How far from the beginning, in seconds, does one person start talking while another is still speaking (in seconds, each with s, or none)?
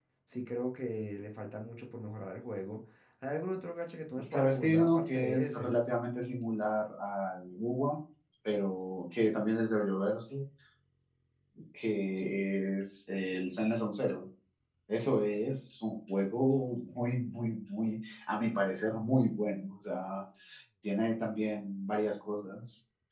4.2 s